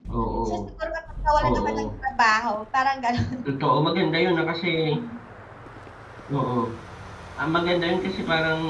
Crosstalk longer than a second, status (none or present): none